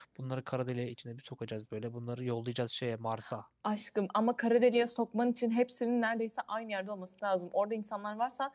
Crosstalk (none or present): none